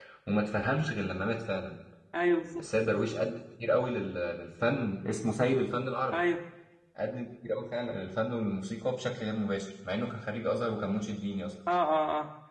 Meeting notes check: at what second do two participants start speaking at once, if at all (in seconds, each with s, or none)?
none